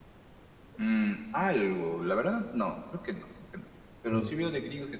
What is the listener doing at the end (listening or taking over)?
listening